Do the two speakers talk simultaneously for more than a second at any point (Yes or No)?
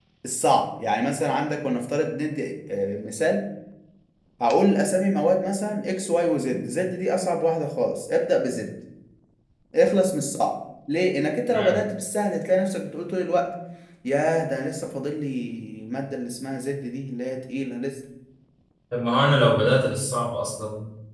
No